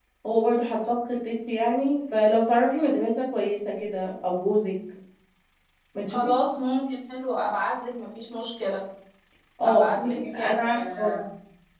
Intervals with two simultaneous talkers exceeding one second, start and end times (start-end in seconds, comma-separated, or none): 9.6-11.2